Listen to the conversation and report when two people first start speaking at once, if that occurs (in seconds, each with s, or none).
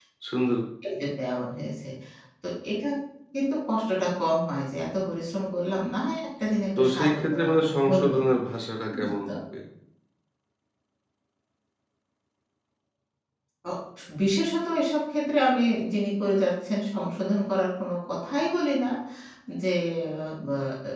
6.8 s